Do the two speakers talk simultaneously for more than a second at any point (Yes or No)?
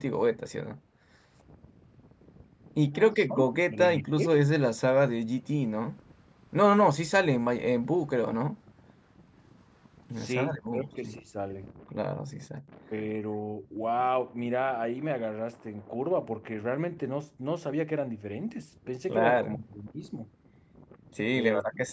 Yes